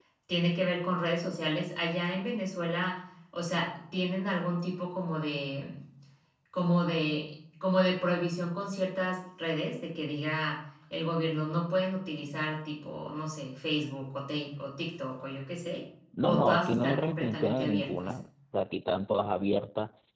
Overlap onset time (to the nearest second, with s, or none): 16 s